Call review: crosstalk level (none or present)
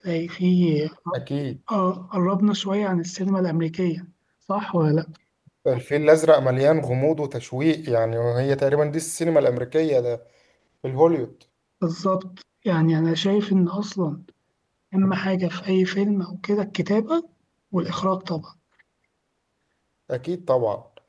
none